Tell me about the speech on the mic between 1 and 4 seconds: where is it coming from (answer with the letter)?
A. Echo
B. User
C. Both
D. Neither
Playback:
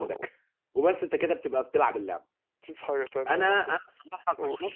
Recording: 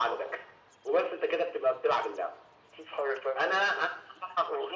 A